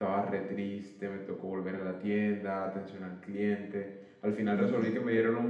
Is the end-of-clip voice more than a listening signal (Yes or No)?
No